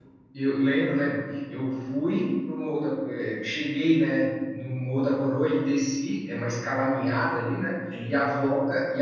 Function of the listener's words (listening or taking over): listening